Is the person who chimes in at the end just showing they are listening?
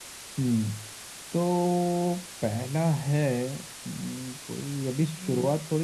Yes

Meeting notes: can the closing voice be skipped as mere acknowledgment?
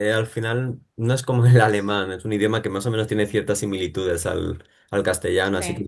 Yes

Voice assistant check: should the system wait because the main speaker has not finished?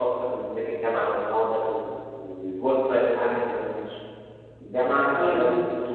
Yes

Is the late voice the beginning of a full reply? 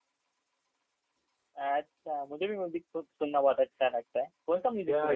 Yes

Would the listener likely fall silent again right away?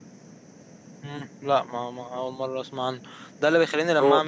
Yes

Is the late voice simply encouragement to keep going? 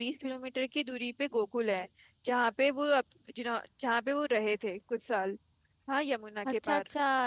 No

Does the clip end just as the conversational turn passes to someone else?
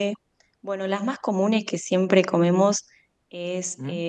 No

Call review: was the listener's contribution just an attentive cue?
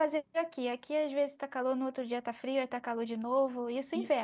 No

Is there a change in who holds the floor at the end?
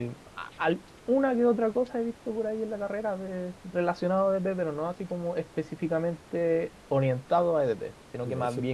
No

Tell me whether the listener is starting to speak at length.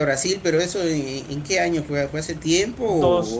Yes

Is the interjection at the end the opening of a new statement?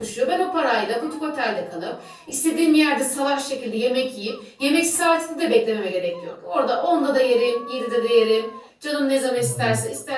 No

